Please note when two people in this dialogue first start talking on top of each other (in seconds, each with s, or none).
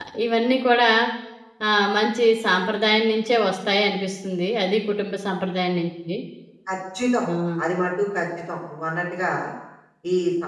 none